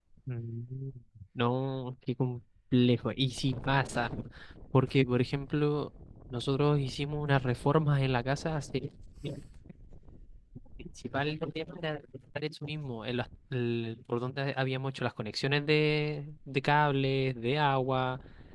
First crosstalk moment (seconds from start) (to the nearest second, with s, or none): none